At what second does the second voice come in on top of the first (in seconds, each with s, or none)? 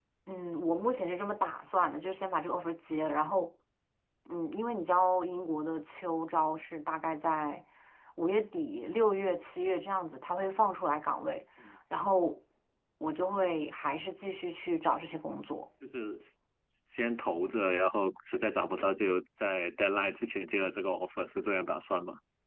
none